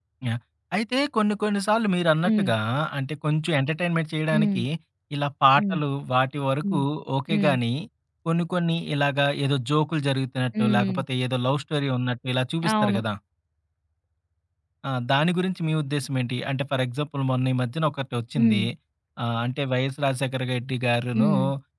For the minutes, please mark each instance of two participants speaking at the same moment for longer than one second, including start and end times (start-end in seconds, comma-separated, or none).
none